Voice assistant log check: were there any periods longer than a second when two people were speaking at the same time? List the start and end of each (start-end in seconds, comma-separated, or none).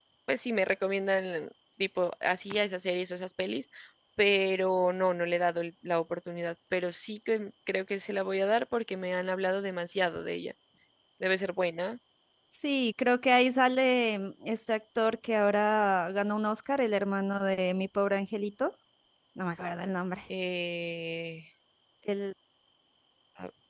none